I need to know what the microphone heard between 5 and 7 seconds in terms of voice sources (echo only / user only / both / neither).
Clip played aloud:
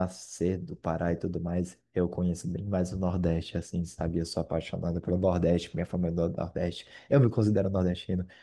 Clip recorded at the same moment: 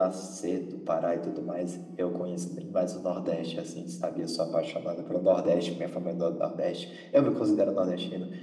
echo only